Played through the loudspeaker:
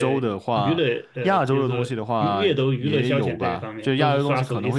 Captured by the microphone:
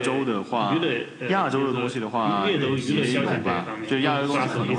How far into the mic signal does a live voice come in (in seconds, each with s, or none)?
2.5 s